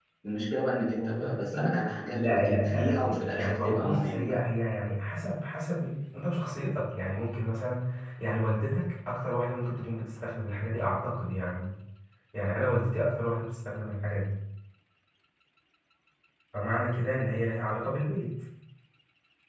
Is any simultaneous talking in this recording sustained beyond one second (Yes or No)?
Yes